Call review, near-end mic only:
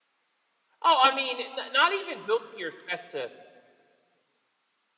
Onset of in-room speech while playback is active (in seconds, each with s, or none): 0.8 s